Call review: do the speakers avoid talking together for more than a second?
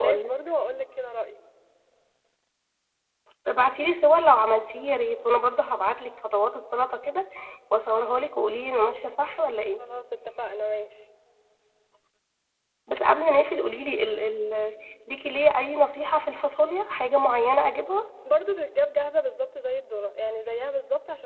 Yes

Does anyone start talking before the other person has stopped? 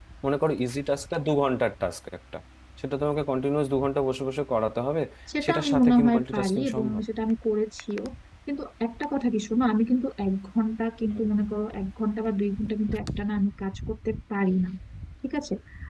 Yes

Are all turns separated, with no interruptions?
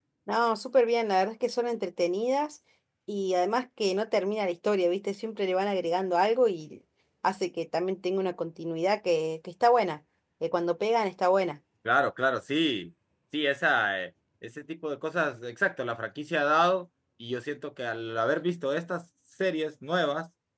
Yes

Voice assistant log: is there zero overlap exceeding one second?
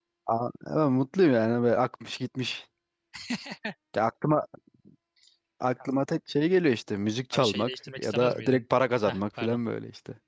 No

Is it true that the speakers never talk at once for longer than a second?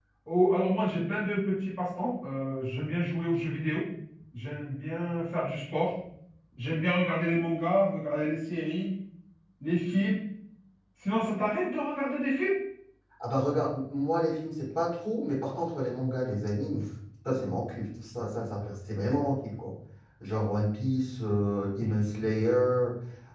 Yes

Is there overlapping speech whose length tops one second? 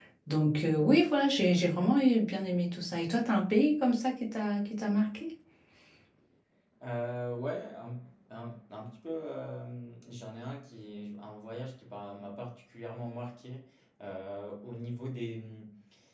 No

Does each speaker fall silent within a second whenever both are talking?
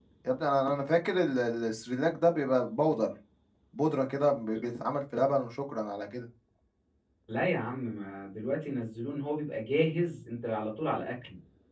Yes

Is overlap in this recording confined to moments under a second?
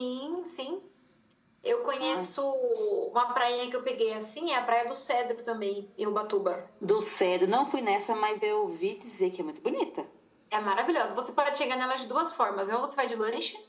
Yes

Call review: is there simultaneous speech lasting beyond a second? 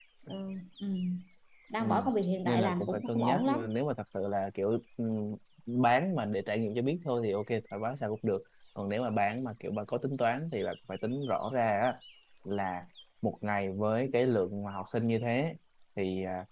Yes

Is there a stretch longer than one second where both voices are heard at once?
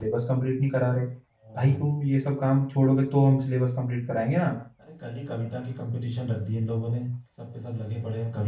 No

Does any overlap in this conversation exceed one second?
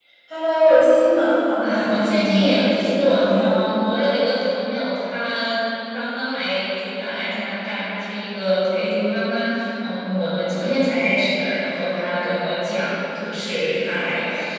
Yes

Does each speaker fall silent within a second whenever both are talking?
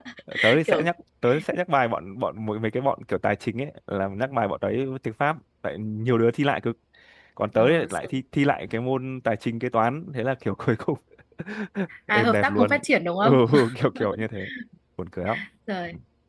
No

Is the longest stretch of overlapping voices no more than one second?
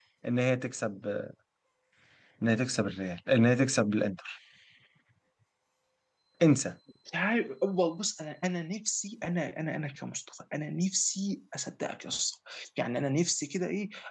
Yes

